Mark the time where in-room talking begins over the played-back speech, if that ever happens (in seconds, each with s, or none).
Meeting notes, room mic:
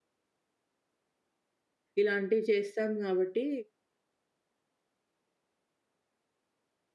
2.0 s